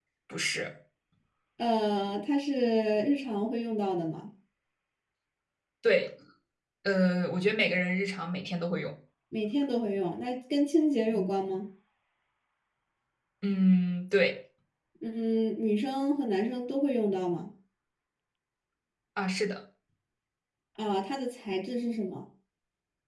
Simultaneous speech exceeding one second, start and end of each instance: none

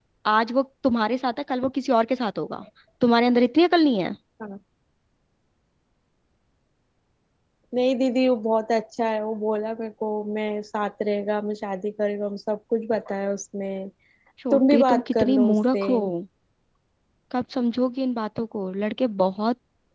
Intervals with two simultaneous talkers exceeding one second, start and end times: 14.5-15.8

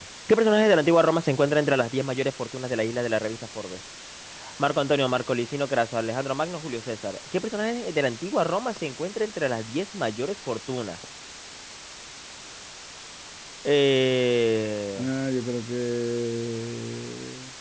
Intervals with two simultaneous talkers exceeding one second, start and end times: none

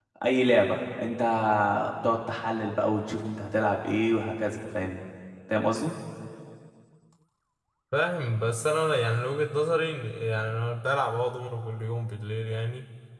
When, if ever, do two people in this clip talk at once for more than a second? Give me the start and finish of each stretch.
none

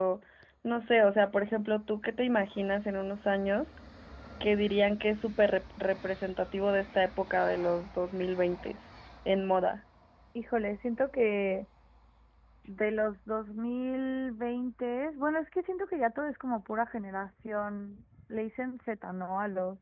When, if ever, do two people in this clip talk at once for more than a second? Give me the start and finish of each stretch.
none

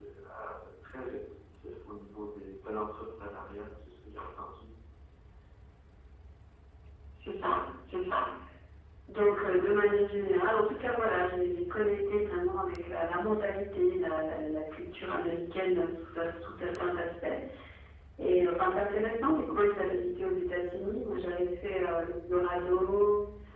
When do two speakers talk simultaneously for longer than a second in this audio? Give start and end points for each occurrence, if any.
none

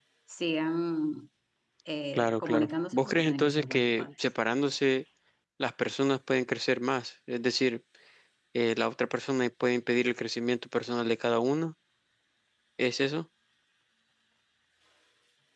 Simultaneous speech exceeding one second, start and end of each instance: 2.1-4.1

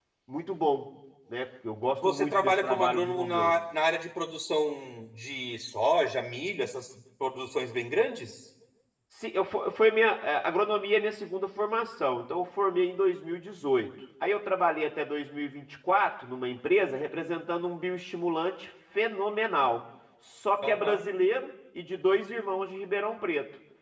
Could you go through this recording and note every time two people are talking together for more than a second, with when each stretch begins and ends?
2.0-3.5

